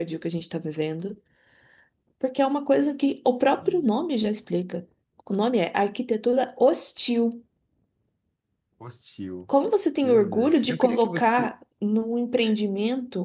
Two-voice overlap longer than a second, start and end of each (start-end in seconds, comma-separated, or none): 10.0-11.5